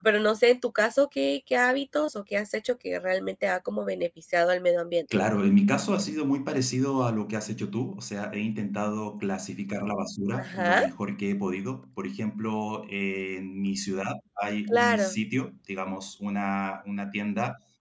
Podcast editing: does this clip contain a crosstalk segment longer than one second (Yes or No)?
No